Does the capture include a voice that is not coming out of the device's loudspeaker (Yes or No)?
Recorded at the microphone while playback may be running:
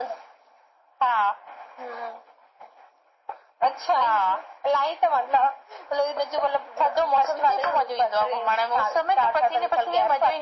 No